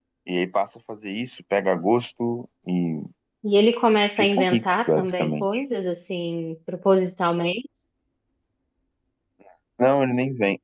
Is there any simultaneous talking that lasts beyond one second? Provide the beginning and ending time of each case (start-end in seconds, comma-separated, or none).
4.2-5.6